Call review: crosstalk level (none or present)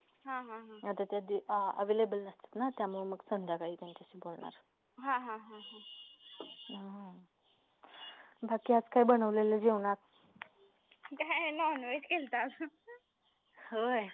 none